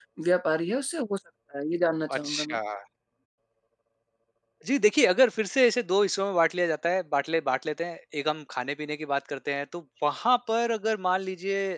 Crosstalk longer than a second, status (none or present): none